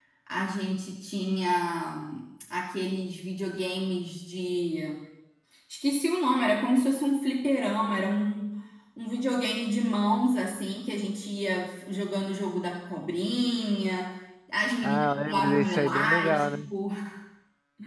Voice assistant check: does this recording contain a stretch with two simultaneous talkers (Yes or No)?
Yes